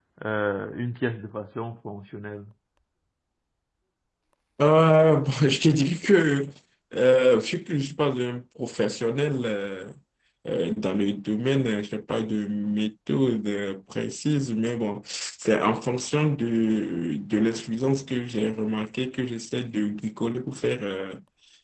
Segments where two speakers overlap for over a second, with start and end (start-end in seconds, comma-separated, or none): none